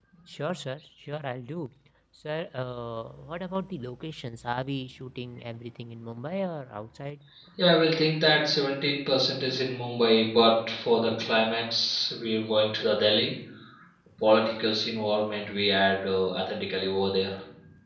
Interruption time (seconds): none

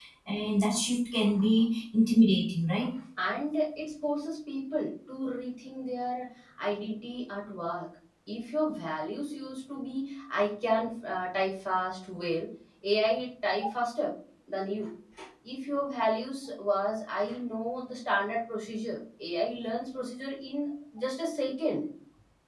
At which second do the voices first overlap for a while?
none

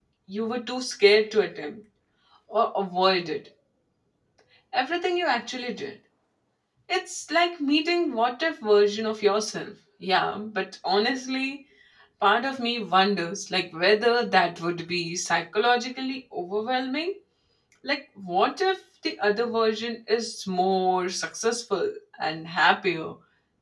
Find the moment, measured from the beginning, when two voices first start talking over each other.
none

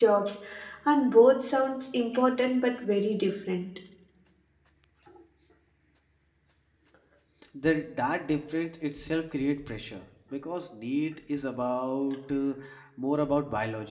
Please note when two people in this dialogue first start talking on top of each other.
none

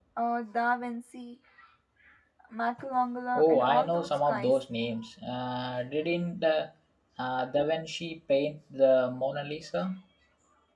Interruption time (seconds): 3 s

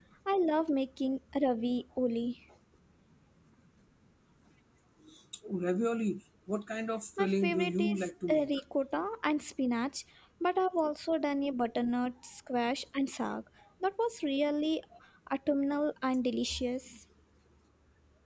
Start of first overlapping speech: 7 s

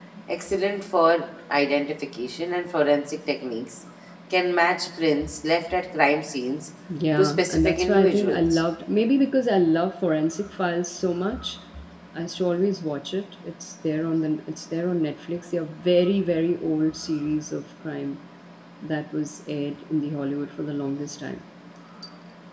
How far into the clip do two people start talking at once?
7 s

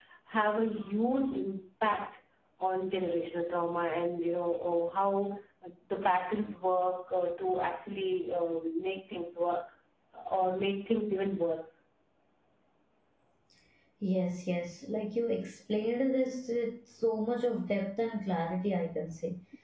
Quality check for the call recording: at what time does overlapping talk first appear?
none

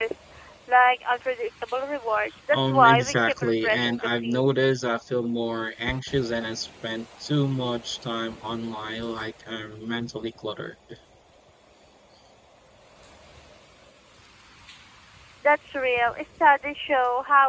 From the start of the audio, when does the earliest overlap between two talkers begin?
3 s

